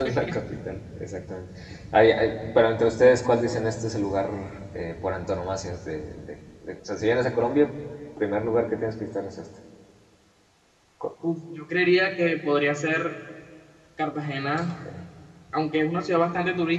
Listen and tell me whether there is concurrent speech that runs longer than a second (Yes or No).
No